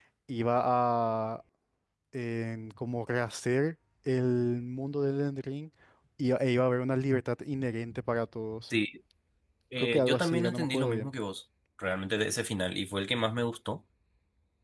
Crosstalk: present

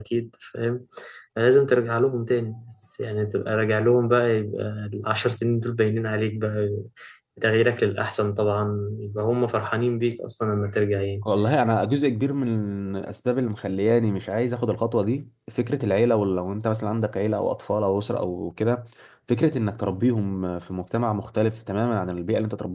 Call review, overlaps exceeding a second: none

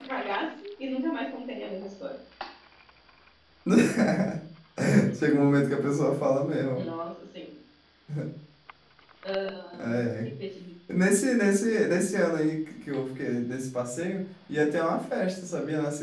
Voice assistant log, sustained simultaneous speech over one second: none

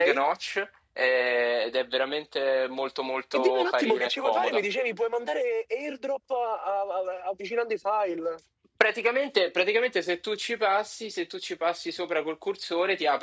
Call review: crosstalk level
present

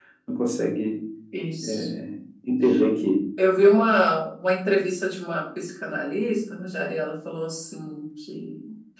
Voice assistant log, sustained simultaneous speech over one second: none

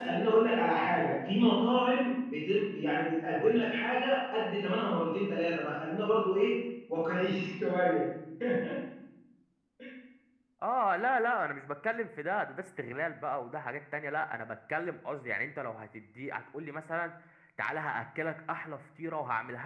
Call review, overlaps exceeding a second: none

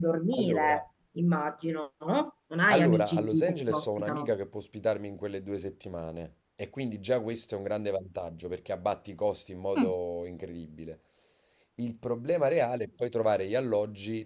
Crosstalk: present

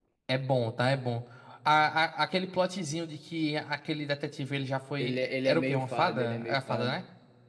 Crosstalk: present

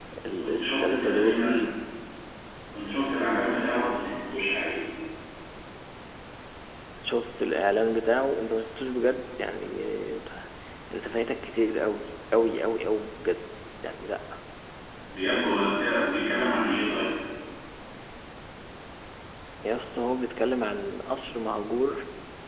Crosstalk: present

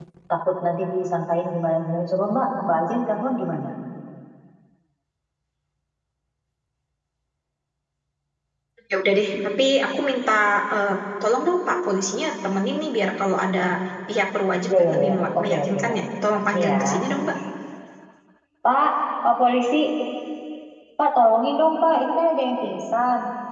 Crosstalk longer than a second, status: present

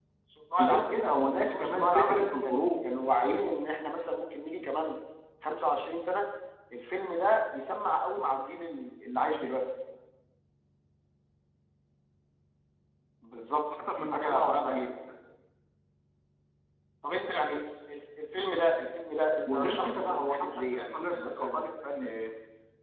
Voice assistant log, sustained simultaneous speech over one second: present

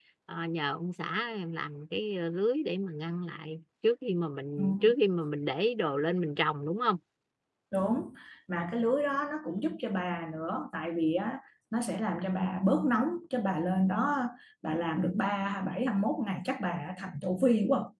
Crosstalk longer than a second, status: none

